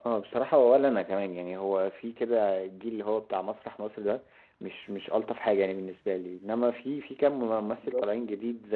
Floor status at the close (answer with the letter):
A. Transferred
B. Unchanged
B